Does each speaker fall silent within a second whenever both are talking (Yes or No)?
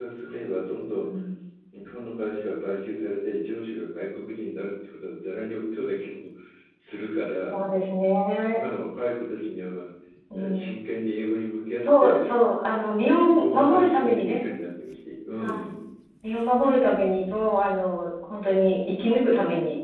No